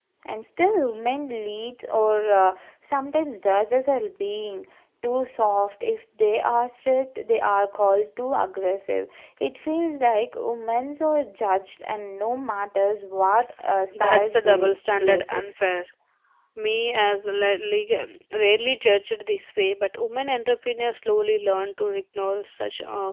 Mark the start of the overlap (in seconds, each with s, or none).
13.9 s